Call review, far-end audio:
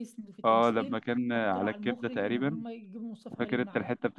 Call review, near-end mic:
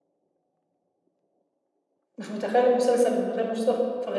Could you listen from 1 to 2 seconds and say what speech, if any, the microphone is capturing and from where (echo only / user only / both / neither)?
neither